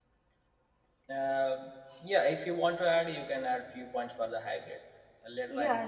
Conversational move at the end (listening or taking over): taking over